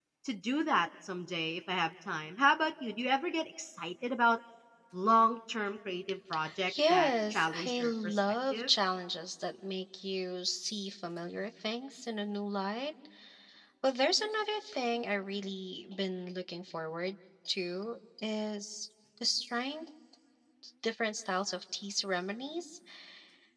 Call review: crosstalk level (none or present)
present